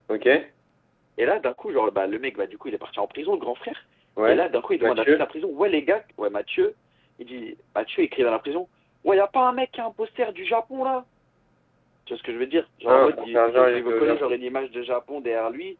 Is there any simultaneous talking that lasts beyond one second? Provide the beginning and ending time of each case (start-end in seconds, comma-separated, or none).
12.9-14.4